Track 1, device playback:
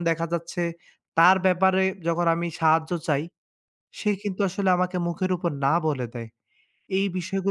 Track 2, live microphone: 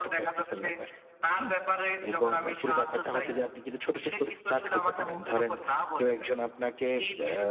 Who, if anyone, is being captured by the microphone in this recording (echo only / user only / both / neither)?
both